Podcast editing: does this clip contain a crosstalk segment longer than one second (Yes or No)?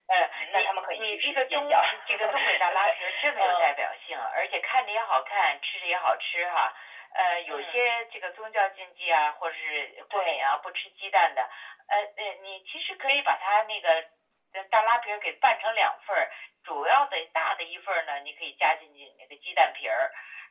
Yes